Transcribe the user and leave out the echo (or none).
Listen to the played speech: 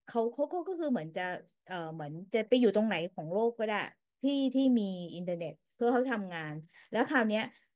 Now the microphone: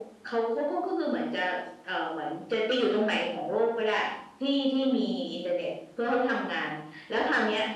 none